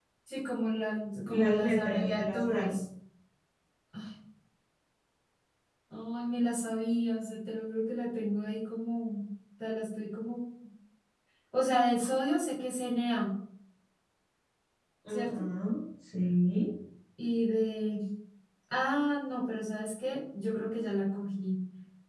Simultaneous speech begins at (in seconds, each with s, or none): 1.3 s